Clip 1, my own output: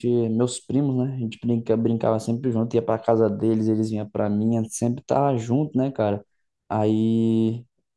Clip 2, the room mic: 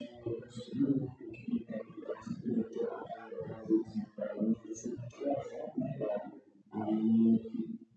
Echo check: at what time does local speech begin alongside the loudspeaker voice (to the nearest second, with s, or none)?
none